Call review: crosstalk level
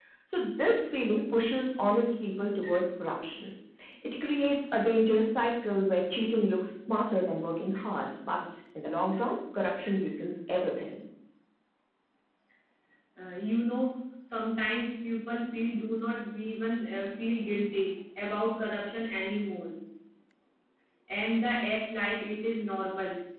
none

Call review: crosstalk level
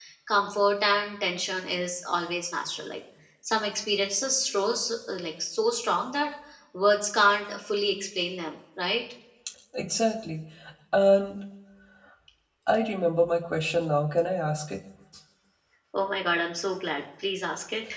none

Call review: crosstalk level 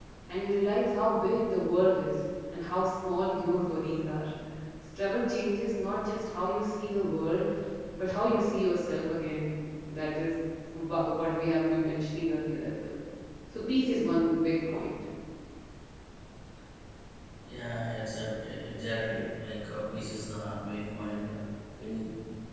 none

